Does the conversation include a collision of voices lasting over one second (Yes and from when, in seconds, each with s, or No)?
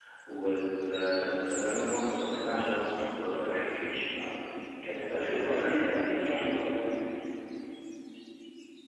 Yes, from 5.1 s